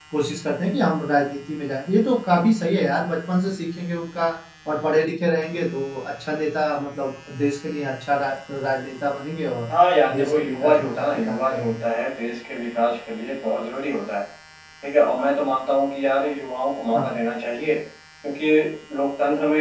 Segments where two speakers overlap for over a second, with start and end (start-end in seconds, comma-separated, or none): 10.2-11.7